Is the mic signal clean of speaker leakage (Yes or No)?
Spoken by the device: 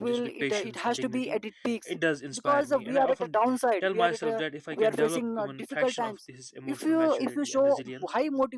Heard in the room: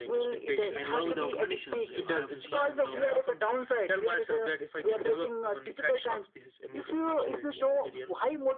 No